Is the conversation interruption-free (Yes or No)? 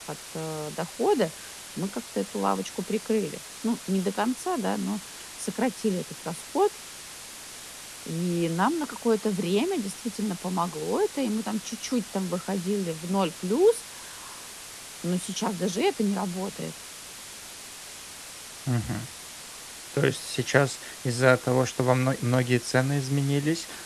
Yes